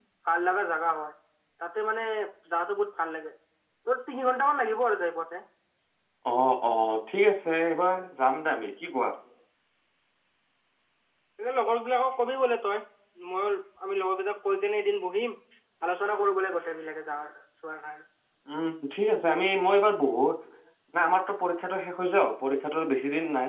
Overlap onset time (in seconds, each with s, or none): none